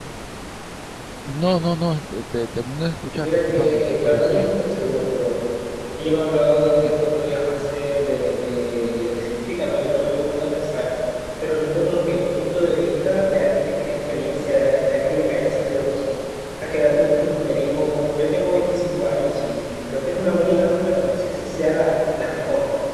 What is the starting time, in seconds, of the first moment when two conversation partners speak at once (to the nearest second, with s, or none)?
3 s